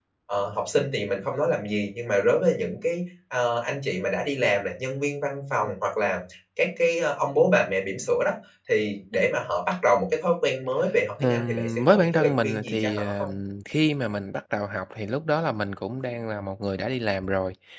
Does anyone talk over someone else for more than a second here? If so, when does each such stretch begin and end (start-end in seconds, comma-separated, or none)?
11.2-13.3